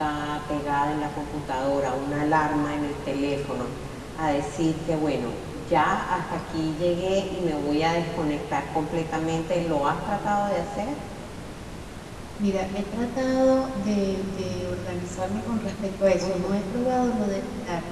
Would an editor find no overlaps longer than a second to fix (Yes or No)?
Yes